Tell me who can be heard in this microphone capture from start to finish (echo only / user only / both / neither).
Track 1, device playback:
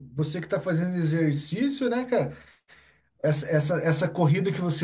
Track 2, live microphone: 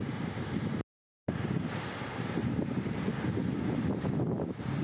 neither